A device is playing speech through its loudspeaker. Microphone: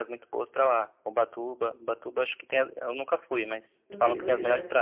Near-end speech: present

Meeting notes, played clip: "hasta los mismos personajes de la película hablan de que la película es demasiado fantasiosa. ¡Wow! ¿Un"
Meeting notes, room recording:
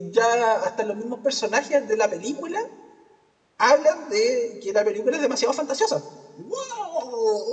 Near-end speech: none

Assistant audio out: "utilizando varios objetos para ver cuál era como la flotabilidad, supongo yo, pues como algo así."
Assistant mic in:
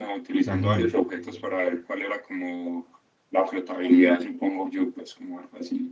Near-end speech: present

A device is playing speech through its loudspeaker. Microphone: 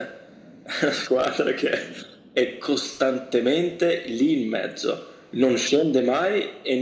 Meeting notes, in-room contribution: none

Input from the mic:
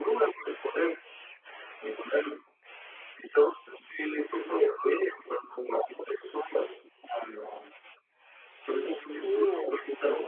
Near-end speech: present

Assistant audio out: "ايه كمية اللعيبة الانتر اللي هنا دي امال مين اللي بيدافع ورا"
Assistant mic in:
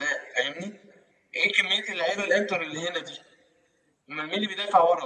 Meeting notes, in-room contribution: none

